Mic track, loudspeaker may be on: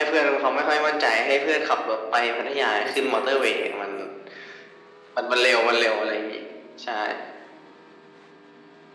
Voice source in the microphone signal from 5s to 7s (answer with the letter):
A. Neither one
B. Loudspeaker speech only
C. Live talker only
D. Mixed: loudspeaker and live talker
B